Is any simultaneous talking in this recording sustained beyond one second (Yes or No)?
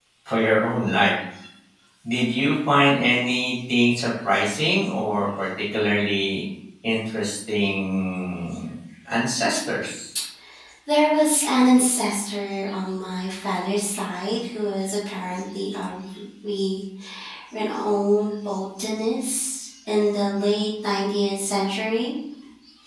No